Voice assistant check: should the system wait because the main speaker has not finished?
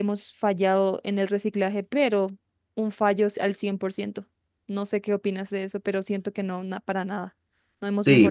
No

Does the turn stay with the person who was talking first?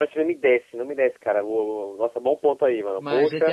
No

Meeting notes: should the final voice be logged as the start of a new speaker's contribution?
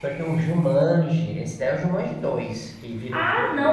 Yes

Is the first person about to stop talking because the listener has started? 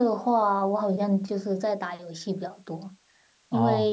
No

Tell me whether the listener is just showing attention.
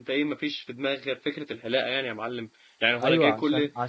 No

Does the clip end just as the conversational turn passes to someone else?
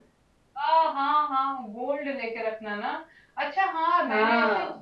No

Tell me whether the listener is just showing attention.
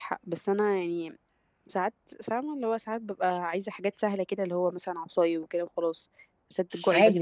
No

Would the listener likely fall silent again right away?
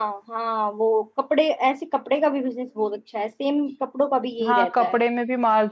No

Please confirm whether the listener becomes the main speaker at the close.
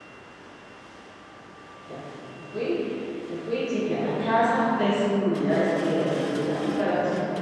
No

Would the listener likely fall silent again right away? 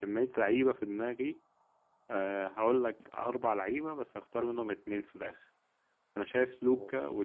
Yes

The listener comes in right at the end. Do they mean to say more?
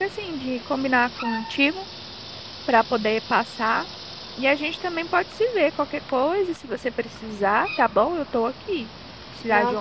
No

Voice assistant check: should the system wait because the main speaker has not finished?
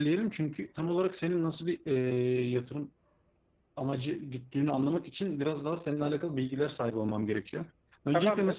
Yes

